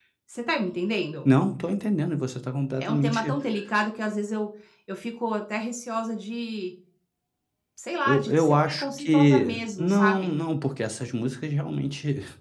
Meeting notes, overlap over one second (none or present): present